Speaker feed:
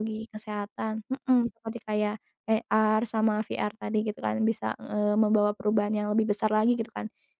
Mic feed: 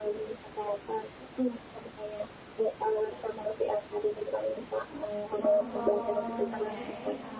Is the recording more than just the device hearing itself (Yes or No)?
Yes